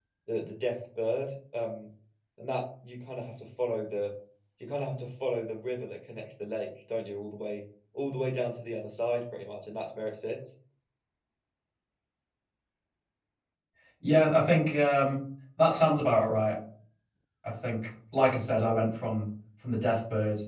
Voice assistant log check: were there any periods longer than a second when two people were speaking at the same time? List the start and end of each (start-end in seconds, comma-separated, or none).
none